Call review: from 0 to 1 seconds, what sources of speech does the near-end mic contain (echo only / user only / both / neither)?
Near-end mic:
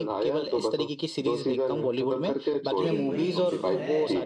echo only